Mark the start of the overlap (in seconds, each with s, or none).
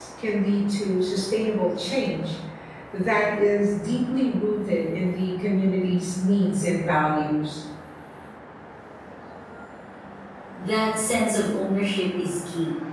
none